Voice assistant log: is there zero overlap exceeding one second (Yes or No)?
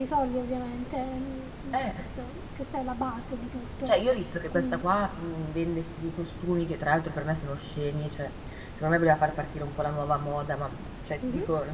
Yes